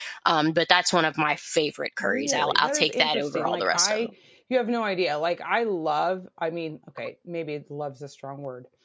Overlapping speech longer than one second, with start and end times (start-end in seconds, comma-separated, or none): 2.0-4.1